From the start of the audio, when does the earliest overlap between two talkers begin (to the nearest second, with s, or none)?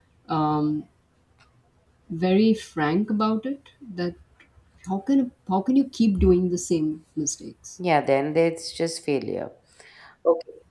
none